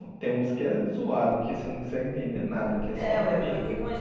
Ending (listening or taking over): taking over